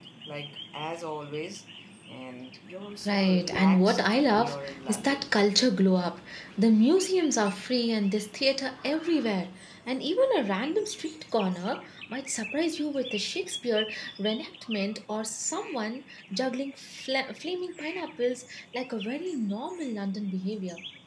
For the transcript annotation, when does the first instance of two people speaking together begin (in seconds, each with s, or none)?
3.0 s